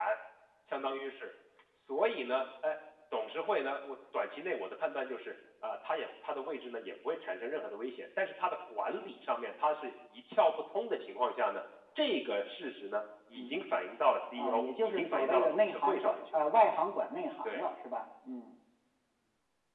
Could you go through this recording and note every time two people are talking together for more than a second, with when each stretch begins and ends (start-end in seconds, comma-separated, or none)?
14.4-16.4